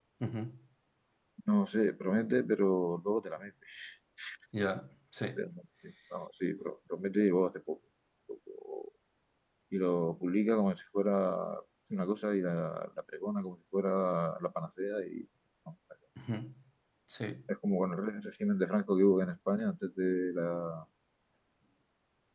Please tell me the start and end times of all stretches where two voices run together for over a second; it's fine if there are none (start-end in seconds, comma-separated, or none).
none